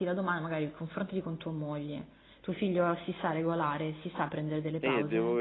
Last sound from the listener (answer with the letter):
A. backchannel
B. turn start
B